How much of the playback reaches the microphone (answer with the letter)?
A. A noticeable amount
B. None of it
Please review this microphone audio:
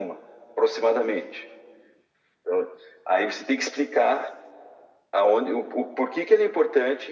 A